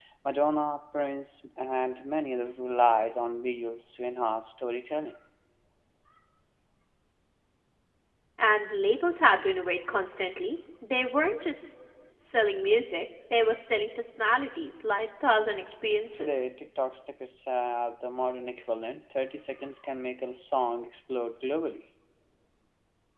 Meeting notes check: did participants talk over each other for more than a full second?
No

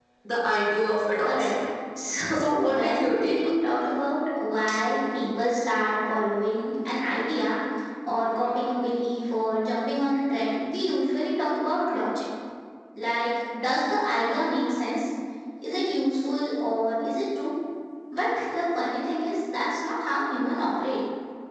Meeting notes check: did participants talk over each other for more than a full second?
Yes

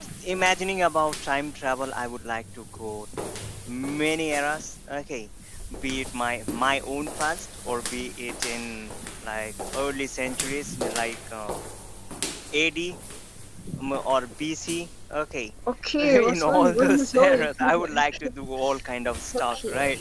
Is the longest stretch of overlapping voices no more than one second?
No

